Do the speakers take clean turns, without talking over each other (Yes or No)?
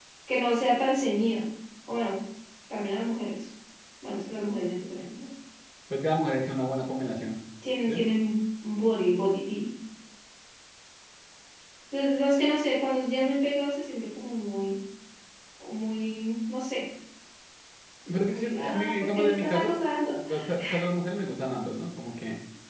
No